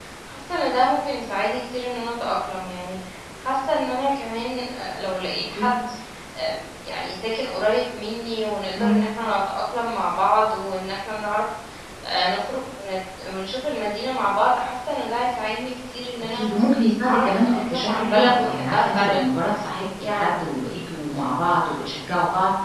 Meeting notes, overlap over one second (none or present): present